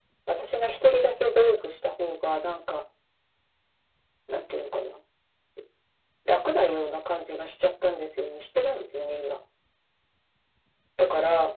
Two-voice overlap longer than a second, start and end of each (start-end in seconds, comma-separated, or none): none